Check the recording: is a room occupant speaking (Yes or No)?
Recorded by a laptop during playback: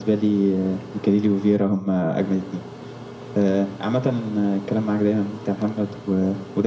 No